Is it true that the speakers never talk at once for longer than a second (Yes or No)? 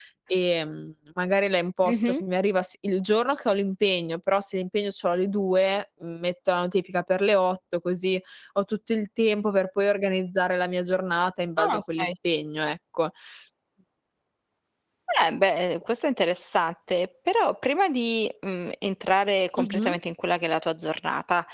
Yes